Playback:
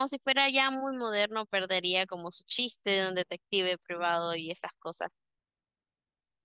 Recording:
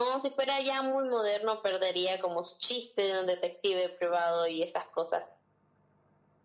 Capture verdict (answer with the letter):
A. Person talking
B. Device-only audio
B